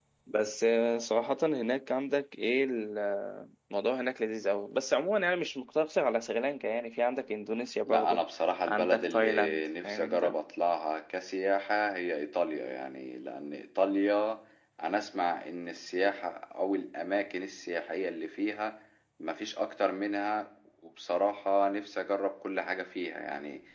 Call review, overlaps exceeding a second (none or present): present